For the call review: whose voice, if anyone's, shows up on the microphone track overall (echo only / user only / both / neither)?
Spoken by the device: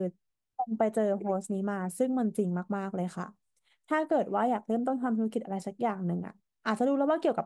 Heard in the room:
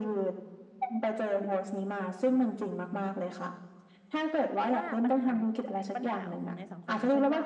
both